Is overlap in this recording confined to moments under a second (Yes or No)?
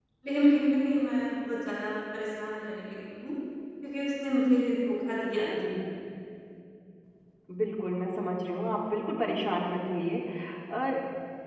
Yes